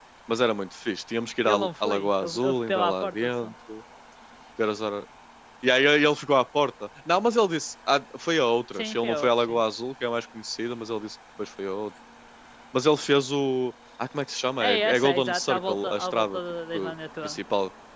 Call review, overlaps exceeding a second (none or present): present